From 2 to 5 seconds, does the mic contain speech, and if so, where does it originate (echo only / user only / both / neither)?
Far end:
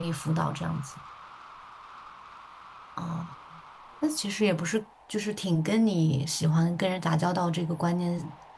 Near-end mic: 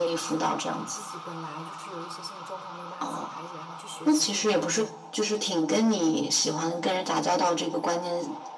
both